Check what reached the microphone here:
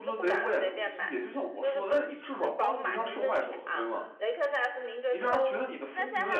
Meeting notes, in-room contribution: present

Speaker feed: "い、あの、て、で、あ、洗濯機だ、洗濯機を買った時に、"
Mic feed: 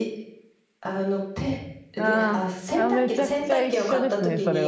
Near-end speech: present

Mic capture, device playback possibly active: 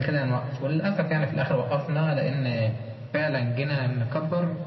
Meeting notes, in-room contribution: none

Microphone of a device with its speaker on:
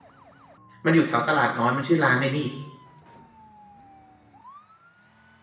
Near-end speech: present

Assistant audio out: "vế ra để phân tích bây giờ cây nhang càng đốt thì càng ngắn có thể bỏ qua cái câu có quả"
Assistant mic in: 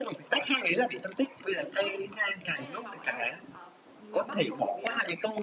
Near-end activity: present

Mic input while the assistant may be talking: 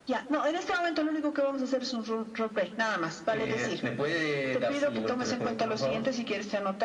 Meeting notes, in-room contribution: none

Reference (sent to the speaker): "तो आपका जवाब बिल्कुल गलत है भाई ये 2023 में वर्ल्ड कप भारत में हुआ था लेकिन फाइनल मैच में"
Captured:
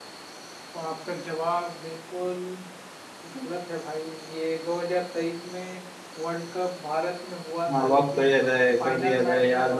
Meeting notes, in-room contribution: present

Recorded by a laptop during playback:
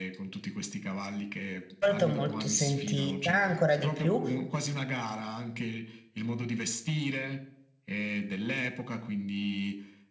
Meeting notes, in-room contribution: present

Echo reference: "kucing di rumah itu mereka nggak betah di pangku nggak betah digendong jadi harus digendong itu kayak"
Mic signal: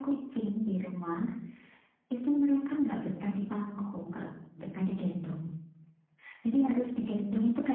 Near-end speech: none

